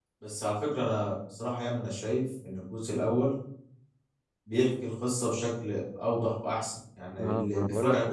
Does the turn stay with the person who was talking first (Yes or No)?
No